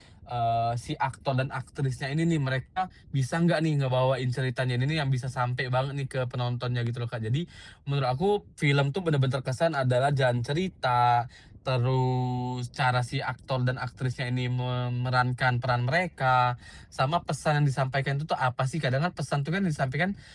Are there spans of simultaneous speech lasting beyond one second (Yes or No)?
No